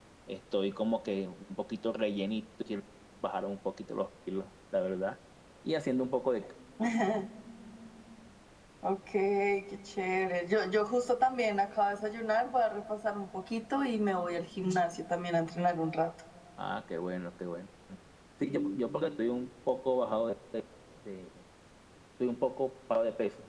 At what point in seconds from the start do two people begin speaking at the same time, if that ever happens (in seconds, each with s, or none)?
none